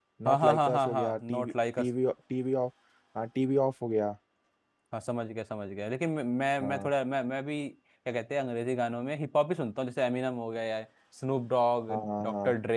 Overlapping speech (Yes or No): Yes